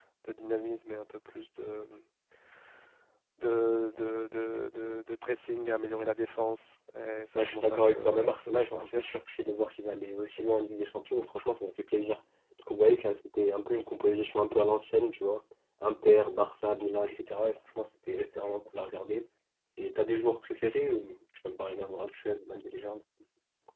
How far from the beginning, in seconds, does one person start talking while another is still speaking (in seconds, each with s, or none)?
7.4 s